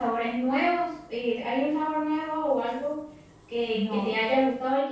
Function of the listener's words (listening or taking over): listening